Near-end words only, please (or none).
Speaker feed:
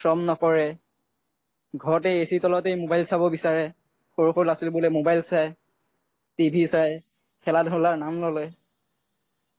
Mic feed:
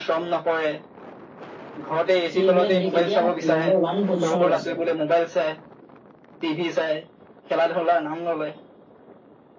সেইবিলাক দেশ এতিয়া নম্বৰ ওৱান পজিচনত আছে